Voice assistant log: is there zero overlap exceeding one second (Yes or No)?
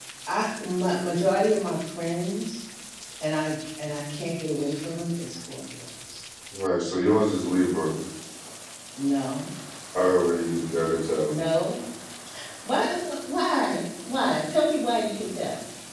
Yes